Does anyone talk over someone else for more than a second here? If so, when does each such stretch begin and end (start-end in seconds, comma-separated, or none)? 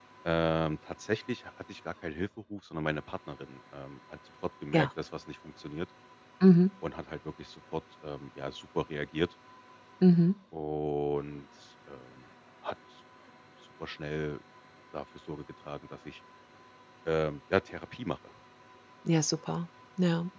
none